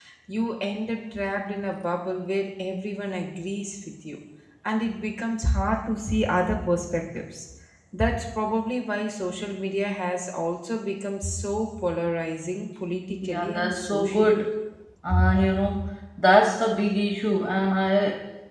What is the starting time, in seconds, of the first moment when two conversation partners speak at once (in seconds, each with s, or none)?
13.2 s